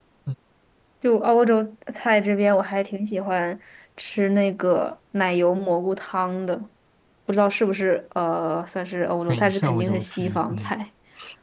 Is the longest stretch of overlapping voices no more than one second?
No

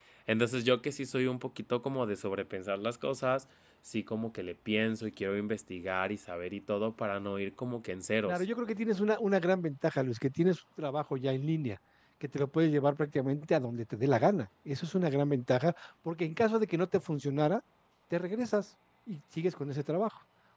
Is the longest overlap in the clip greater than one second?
No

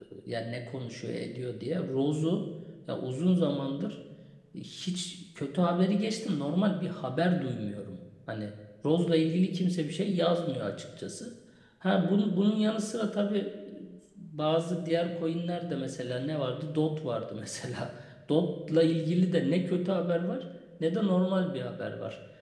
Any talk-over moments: No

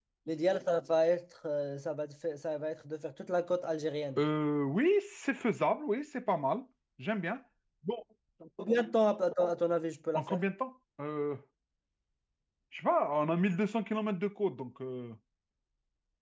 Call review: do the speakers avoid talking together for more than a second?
Yes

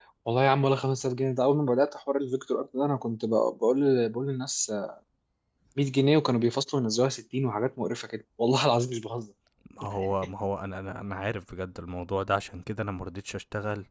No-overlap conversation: Yes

